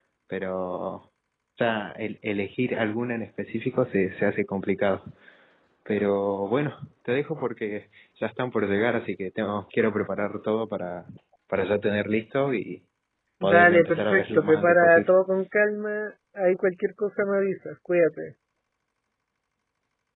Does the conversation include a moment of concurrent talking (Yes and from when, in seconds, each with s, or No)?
Yes, from 13.4 s